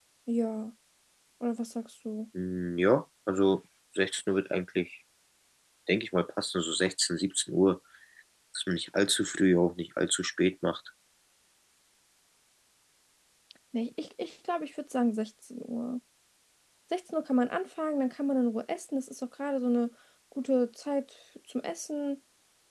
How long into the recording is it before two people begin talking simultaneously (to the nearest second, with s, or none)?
none